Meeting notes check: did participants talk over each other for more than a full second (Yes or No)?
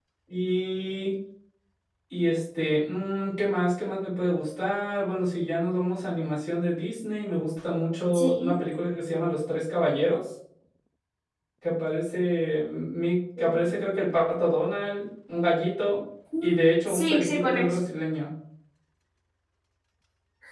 Yes